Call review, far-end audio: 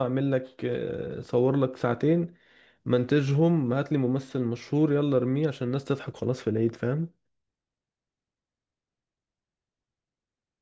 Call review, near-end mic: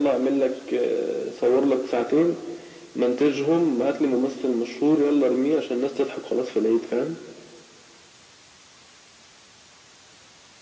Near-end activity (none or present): none